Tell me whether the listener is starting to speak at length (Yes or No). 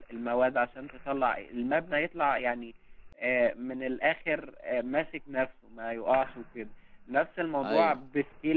No